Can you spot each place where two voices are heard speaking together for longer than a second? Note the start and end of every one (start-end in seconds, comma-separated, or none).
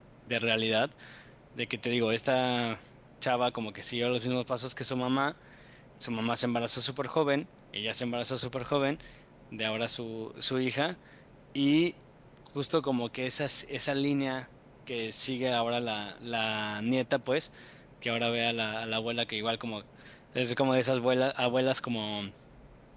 none